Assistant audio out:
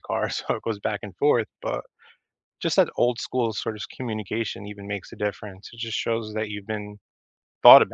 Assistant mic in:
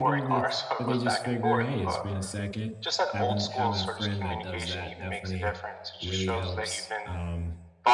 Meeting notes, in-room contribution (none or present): present